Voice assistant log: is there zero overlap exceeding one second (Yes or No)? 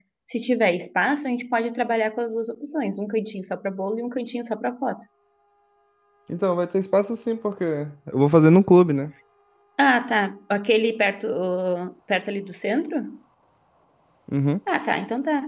Yes